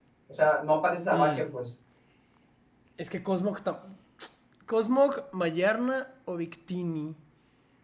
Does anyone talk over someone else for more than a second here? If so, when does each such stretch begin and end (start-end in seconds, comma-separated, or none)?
none